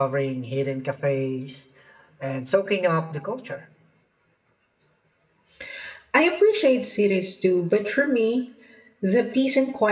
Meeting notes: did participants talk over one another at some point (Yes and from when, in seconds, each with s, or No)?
No